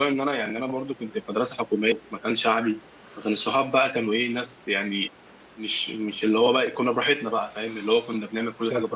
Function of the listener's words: listening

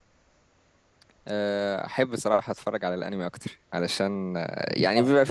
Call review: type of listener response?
listening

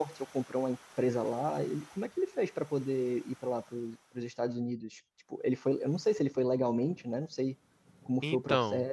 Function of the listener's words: taking over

